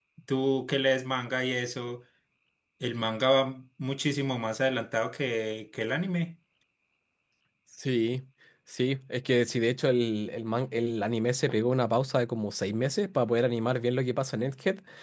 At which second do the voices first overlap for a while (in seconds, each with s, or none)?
none